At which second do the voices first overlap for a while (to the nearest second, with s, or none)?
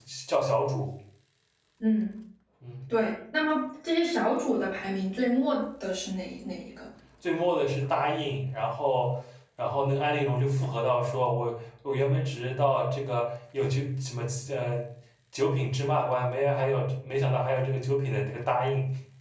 none